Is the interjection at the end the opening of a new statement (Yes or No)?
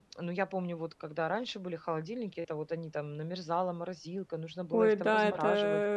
Yes